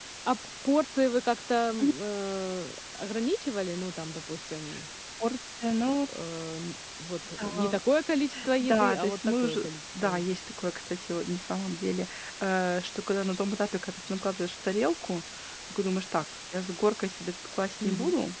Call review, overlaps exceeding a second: present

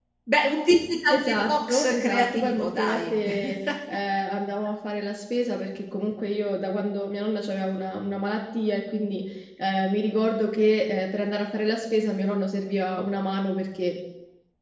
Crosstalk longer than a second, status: present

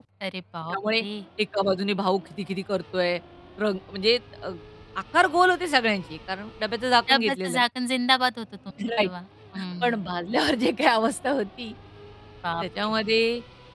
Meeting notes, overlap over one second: none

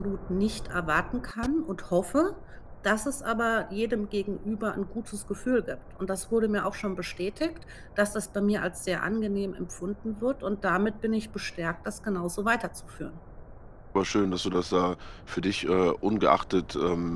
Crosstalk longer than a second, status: none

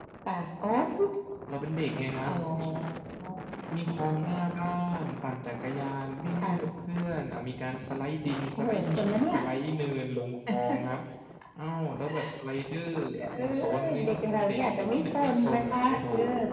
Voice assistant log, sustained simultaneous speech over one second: present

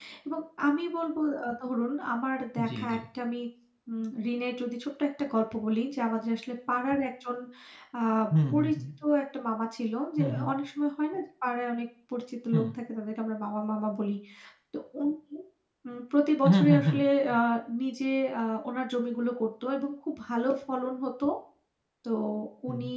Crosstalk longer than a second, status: none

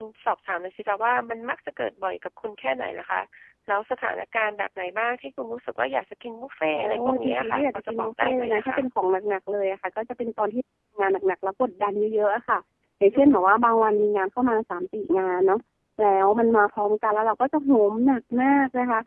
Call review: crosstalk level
present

